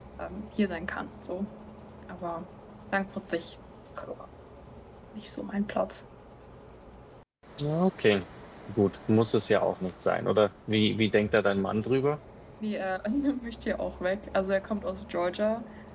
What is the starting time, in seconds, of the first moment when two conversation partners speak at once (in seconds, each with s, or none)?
none